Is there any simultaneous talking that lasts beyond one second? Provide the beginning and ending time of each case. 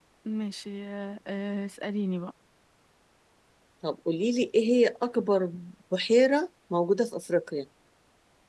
none

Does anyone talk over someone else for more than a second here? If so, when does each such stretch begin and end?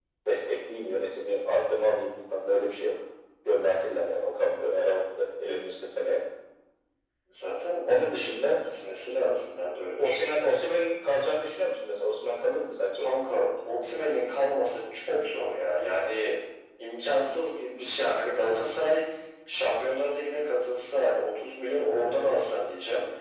none

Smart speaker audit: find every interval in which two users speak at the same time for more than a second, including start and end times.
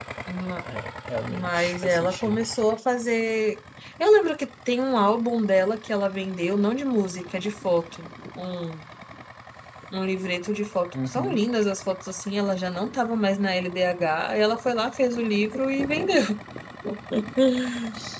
1.3-2.5

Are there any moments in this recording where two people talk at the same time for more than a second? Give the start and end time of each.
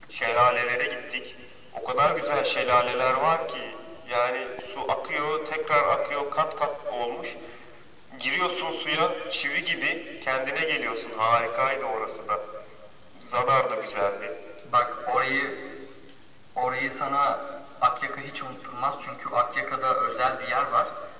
none

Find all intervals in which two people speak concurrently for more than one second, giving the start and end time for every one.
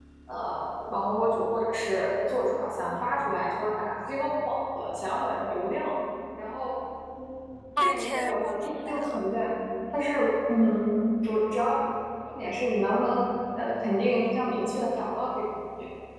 7.8-9.2

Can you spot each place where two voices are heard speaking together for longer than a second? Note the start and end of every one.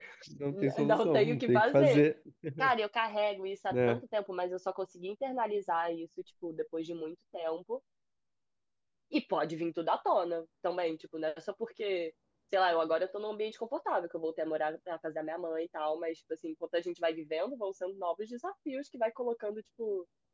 0.5-2.0

